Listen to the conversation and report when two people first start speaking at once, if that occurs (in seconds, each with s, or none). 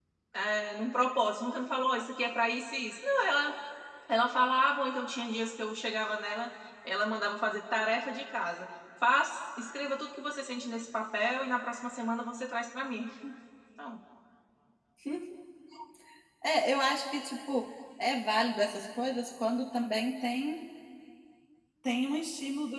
none